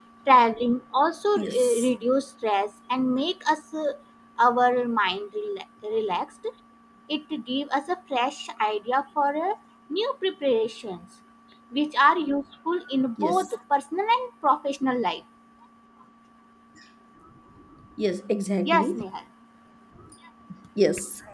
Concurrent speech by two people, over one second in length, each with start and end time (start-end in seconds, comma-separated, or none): none